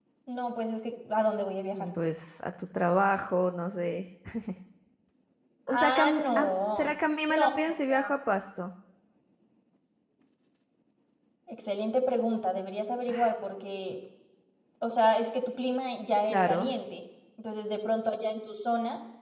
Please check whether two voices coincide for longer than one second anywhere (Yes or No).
Yes